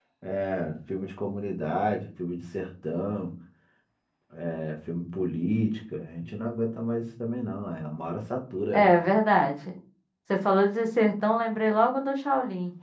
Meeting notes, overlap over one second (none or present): none